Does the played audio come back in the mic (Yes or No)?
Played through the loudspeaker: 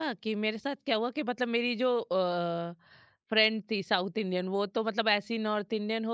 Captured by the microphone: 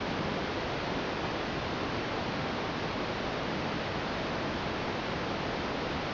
No